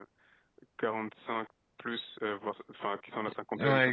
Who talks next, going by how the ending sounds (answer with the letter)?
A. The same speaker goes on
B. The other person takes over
B